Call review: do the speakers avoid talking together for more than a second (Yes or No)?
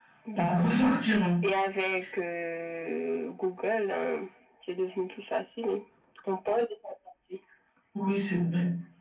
Yes